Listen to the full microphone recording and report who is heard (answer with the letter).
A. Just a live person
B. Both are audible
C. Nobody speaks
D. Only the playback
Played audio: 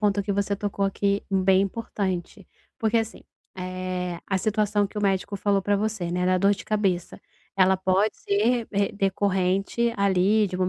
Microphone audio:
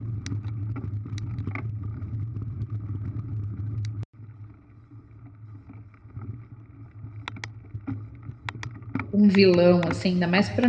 A